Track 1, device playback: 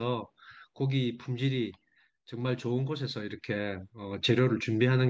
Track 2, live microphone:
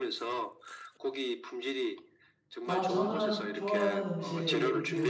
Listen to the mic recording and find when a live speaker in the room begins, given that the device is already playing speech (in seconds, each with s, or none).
2.6 s